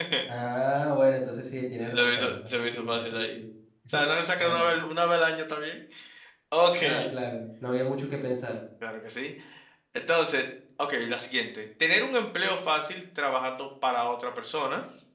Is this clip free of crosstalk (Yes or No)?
No